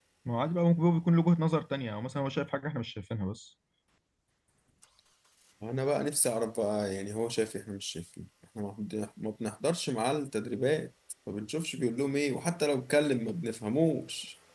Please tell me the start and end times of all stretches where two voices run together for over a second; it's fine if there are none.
none

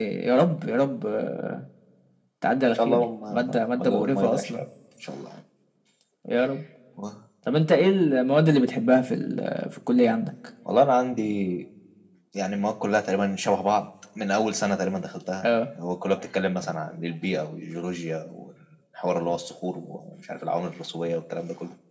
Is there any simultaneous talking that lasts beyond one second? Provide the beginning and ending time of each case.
2.9-4.6

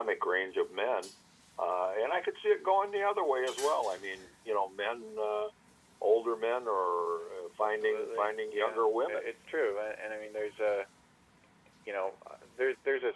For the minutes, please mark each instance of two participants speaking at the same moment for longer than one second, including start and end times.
7.6-9.3

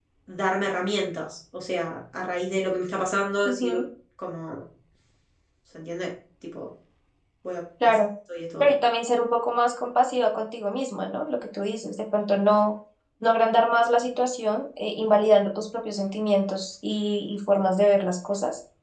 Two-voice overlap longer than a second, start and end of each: none

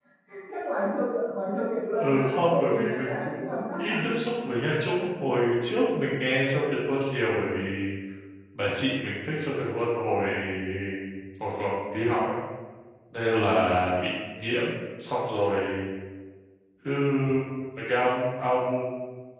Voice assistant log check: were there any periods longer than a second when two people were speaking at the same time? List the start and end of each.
2.0-3.9

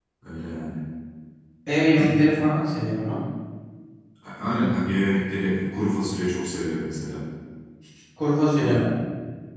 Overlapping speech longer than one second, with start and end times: none

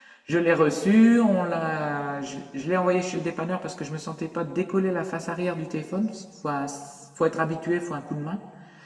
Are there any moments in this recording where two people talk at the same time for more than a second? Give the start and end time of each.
none

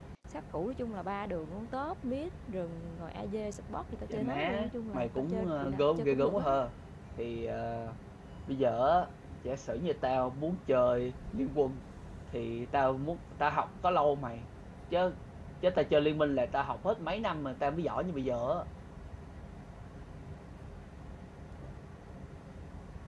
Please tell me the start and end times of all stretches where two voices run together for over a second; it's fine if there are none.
4.1-6.6

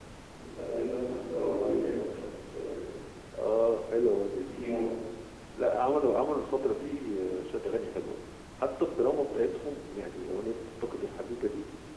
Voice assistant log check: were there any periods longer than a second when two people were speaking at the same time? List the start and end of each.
none

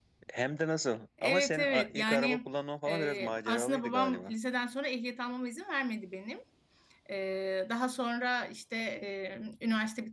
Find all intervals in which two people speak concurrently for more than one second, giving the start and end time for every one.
1.2-2.5, 2.9-4.3

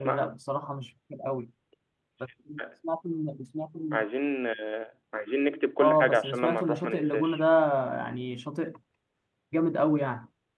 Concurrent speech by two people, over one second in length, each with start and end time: 5.8-7.4

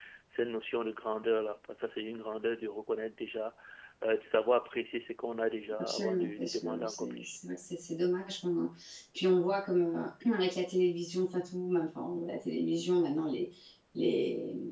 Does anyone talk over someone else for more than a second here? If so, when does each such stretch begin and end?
5.8-7.4

